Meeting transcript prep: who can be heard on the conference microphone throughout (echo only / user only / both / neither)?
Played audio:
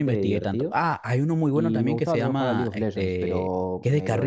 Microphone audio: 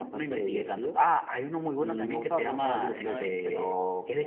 both